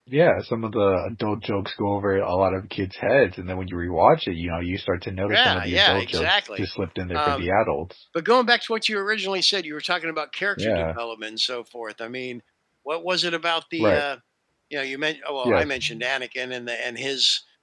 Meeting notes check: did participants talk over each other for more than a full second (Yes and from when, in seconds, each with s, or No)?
Yes, from 5.3 s